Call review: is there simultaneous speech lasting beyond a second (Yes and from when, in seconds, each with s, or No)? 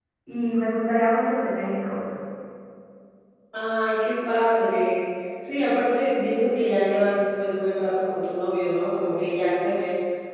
No